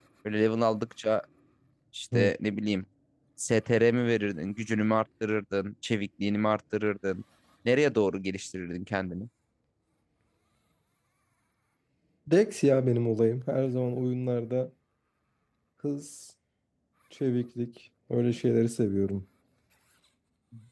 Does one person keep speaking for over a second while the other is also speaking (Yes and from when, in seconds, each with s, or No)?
No